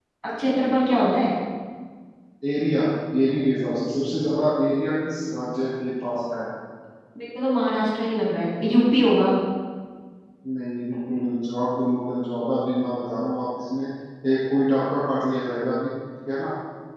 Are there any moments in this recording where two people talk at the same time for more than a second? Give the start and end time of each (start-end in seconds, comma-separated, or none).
none